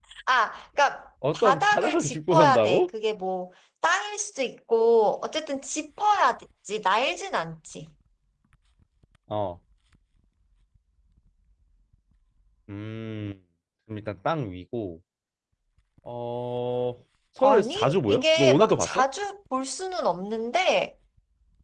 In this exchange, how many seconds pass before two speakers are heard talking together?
1.3 s

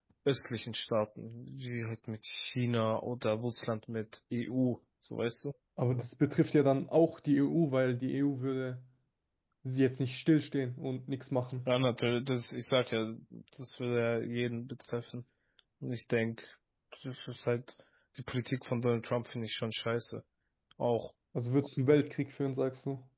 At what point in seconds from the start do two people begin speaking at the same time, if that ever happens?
none

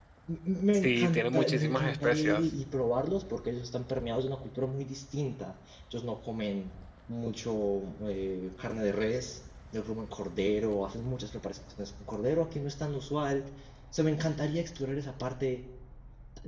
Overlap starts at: 0.7 s

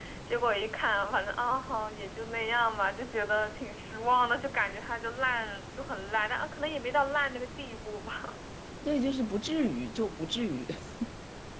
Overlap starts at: none

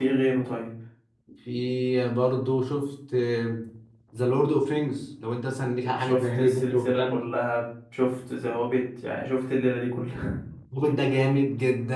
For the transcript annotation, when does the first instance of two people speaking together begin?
6.0 s

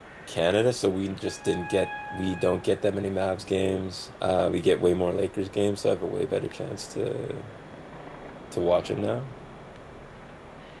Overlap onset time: none

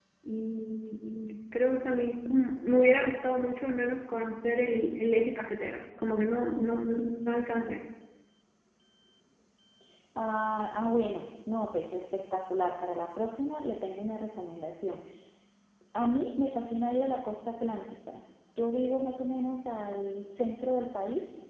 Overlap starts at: none

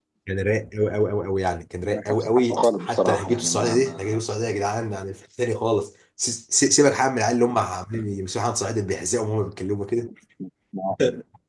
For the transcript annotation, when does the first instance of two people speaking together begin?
1.8 s

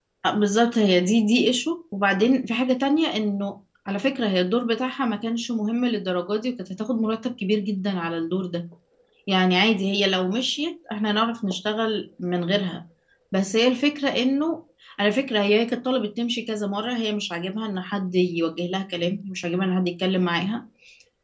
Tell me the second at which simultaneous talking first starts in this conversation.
none

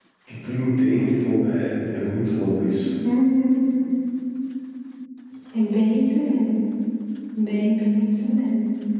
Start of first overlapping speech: none

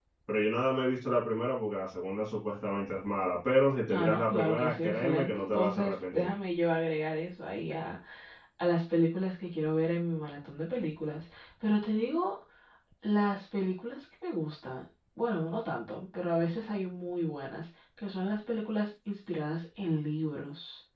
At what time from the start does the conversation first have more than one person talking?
3.9 s

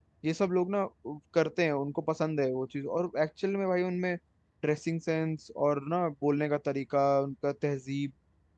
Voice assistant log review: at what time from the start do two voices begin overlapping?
none

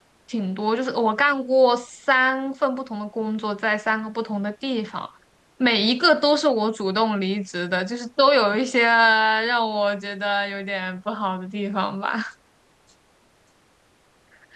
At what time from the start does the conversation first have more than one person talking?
none

